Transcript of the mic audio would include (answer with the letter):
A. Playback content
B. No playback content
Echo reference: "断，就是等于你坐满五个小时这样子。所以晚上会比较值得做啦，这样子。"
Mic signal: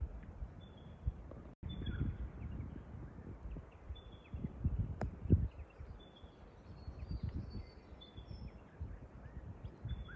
B